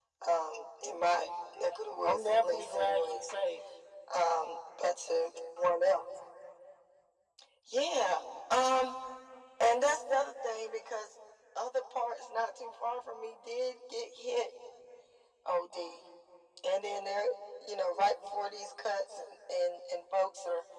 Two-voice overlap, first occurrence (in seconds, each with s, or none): 2.0 s